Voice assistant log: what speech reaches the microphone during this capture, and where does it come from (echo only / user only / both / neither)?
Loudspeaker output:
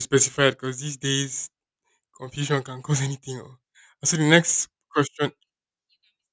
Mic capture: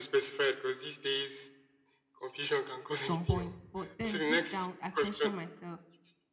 both